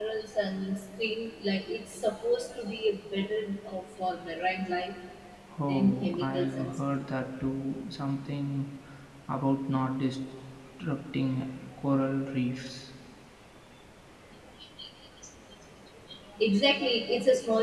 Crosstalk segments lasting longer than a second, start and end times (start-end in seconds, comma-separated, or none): 5.7-7.0